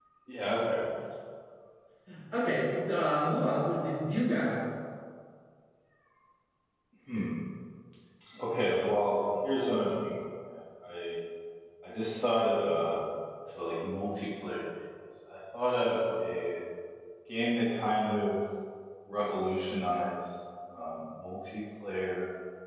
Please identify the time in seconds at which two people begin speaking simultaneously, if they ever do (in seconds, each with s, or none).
none